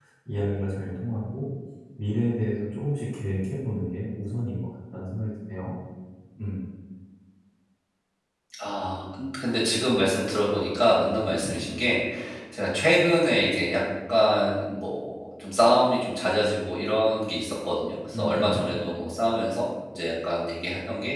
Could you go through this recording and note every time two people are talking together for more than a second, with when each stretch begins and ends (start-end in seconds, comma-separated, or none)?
none